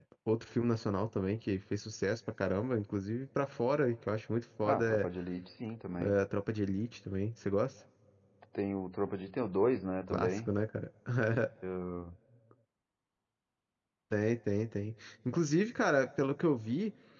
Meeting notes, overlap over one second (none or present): none